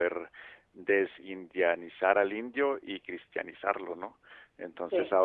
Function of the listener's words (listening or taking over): listening